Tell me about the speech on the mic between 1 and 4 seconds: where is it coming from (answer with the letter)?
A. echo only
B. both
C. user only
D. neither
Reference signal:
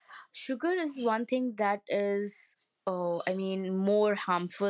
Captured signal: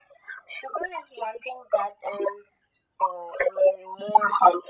A